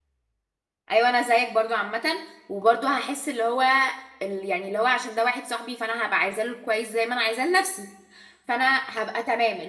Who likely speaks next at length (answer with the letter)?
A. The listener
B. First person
B